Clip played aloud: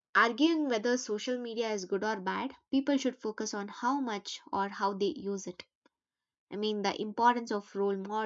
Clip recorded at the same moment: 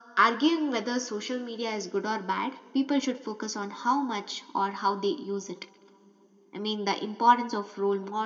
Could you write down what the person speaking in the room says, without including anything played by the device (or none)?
none